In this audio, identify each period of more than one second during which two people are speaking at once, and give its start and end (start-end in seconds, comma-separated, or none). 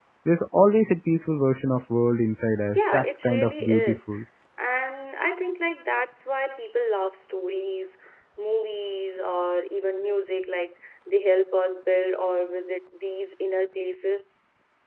2.7-4.0